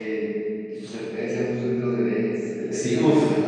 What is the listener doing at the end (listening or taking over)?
taking over